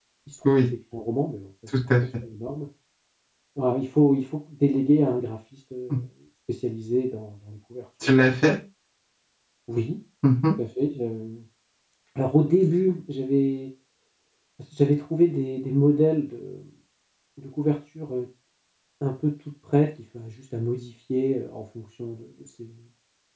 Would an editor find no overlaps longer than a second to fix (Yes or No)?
Yes